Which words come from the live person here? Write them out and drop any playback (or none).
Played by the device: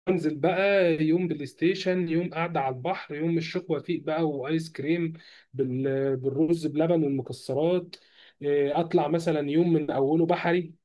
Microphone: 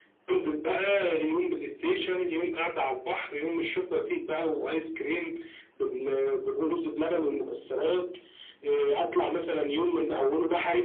none